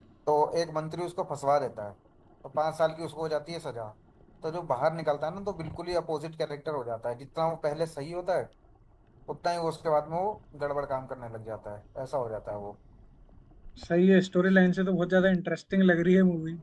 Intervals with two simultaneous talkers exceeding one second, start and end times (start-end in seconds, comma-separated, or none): none